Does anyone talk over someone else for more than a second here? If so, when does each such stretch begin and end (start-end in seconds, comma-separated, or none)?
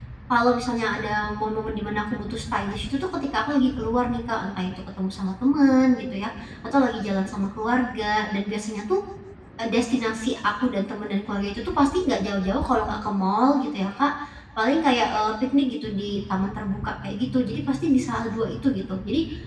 none